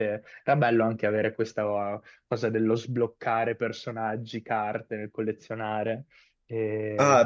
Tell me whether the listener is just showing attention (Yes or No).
No